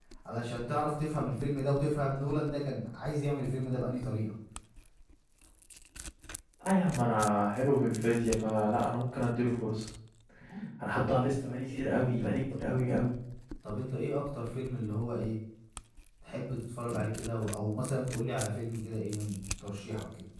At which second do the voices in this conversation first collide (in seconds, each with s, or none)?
none